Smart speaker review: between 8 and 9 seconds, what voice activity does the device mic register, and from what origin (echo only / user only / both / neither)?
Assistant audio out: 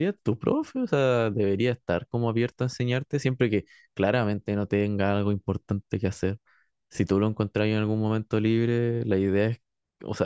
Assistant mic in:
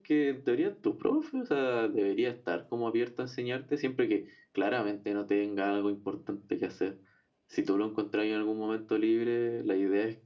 echo only